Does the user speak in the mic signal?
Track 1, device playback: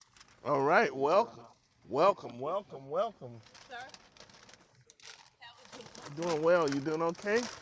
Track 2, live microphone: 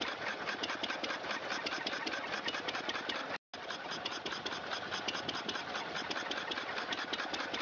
No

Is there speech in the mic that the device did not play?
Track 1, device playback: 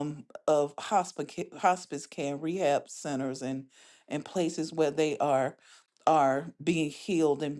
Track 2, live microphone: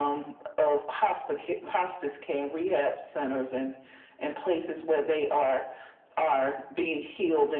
No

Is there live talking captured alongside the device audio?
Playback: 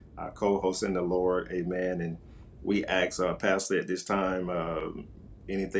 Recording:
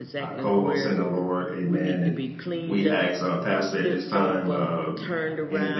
Yes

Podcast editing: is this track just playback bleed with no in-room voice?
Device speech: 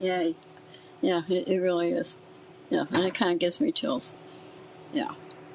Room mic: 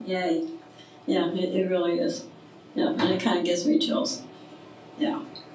Yes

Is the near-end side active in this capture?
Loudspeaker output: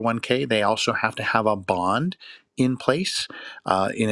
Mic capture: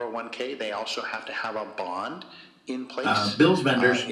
Yes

